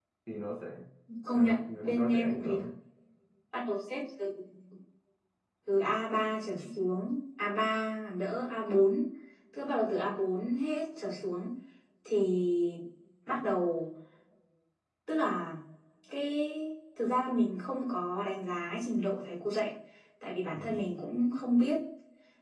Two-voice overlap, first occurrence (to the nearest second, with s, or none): 1 s